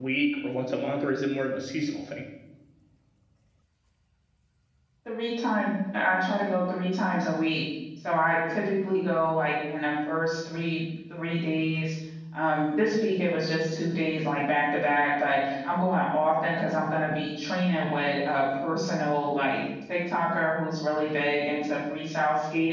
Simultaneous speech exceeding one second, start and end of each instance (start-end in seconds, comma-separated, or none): none